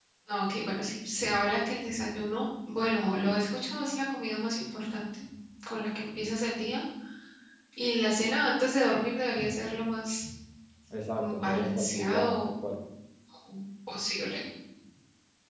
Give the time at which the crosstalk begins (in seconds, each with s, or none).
11.1 s